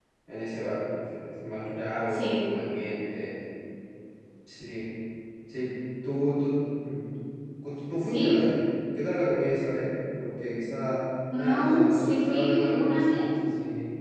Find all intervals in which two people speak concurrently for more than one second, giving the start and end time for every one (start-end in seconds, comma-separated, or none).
11.3-13.2